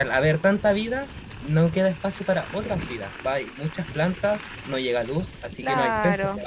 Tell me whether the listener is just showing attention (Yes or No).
No